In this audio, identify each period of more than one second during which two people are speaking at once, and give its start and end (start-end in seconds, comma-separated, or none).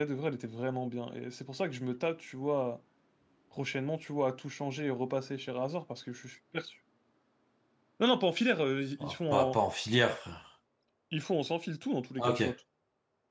none